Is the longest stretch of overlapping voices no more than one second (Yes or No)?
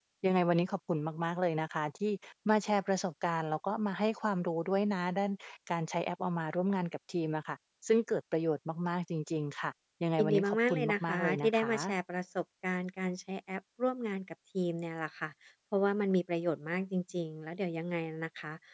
No